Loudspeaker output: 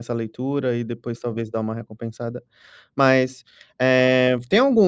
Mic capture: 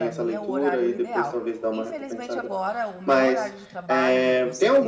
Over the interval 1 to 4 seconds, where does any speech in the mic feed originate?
both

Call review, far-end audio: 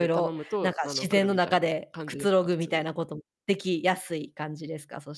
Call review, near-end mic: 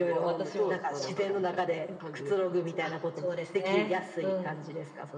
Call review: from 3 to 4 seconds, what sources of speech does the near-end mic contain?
both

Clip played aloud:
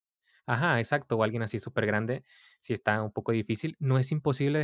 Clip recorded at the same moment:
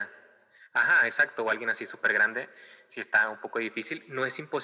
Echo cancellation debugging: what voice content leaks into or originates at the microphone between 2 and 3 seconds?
echo only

